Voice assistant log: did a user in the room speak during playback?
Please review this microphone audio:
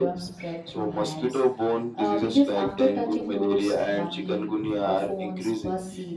Yes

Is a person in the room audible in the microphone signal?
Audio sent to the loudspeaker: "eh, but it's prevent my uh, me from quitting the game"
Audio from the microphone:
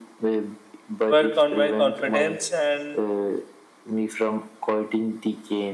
Yes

